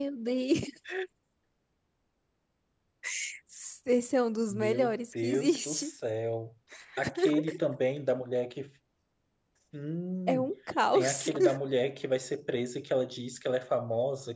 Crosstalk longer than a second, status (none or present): present